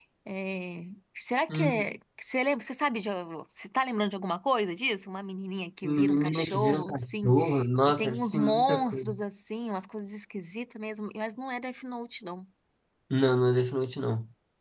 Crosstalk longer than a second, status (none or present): present